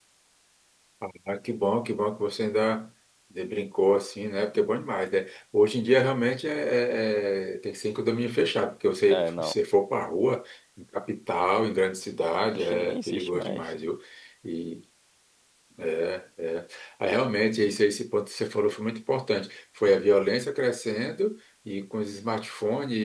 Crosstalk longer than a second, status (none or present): present